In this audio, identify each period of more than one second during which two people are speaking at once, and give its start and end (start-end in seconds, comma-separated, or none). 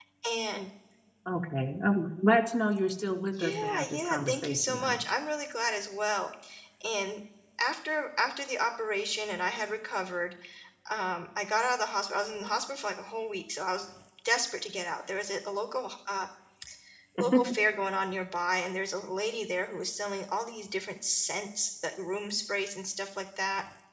3.4-5.0